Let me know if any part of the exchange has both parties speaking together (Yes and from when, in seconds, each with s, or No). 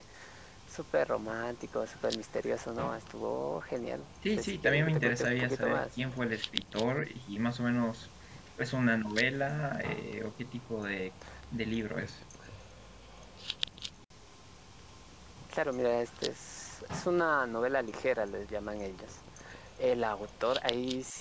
Yes, from 4.2 s